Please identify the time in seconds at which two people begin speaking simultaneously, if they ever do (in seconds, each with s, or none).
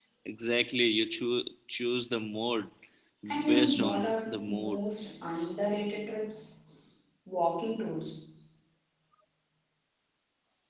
3.4 s